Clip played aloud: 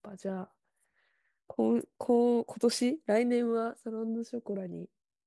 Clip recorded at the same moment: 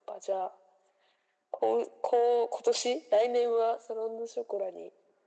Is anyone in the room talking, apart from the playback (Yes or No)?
No